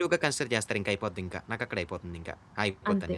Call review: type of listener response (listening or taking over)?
taking over